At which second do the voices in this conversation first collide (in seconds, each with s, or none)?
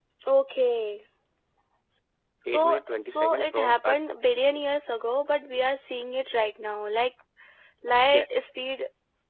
2.5 s